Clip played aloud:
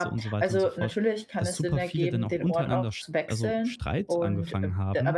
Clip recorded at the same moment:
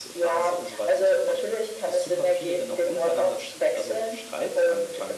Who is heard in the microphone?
echo only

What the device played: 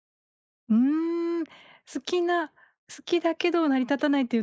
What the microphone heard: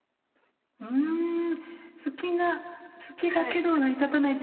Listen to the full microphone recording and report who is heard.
both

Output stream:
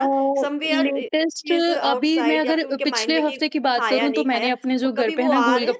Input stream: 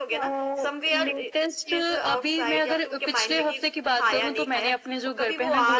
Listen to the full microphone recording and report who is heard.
echo only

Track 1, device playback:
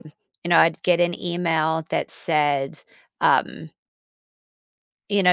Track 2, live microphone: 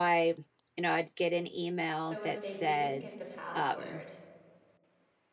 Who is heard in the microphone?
both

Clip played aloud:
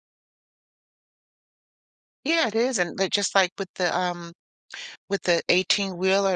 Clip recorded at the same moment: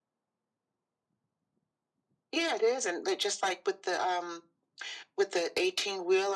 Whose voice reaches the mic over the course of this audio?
echo only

